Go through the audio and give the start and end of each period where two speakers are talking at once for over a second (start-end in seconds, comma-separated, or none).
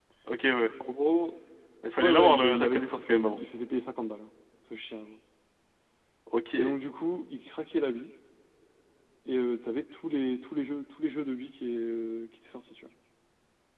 2.0-3.4